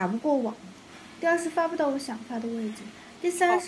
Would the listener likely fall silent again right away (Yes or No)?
Yes